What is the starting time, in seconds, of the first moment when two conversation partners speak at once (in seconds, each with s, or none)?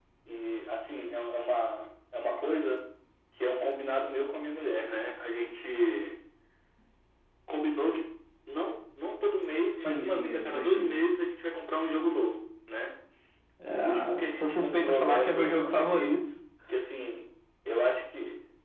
9.8 s